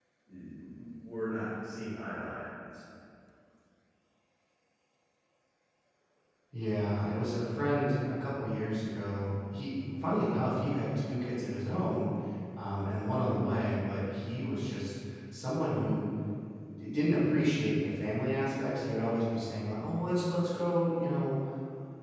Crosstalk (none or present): none